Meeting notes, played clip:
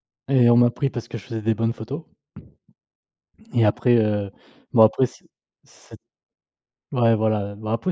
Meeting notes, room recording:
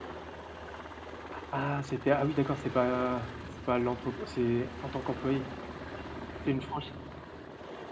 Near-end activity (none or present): present